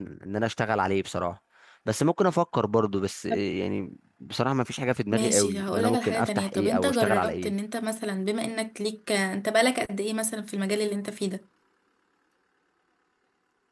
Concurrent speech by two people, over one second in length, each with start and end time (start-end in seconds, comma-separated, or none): 5.1-7.5